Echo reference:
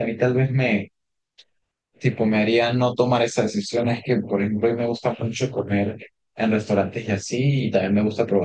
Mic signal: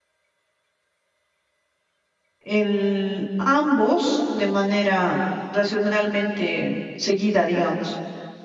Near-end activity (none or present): present